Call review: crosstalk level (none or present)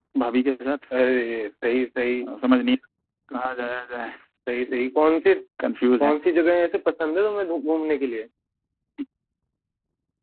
none